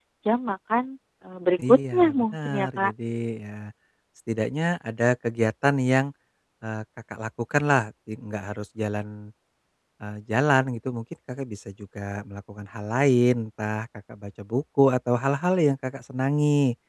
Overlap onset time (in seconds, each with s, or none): 1.6 s